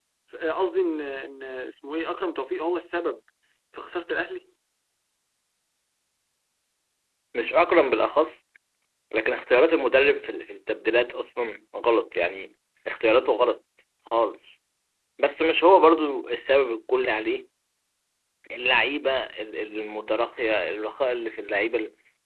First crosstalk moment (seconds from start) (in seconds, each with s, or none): none